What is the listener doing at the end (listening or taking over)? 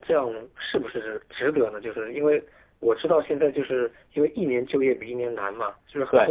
listening